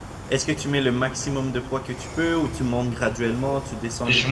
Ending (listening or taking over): taking over